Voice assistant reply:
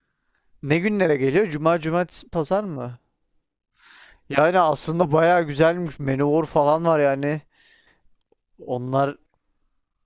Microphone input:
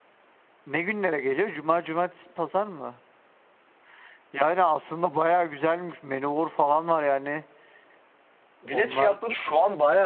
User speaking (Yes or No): Yes